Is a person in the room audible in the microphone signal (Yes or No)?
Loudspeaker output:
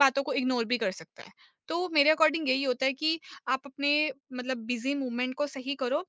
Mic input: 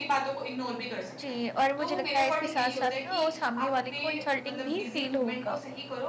Yes